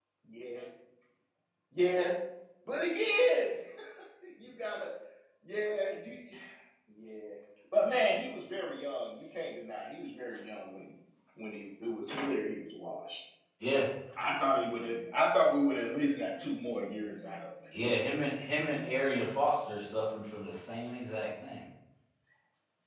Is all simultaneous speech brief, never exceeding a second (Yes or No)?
Yes